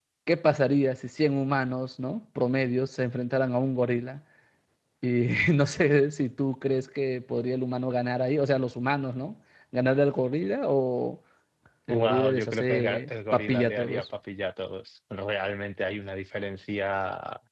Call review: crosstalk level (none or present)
present